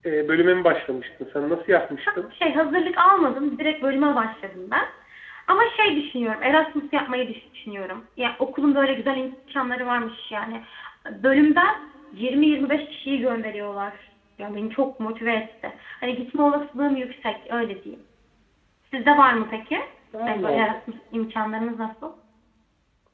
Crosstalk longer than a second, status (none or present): none